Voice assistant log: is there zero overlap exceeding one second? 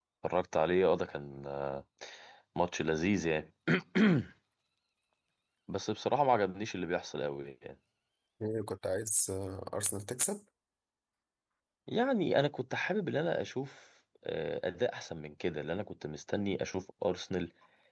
Yes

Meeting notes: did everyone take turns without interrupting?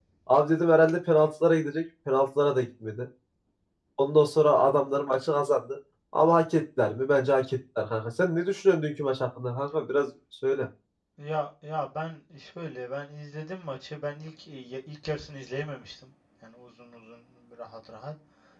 Yes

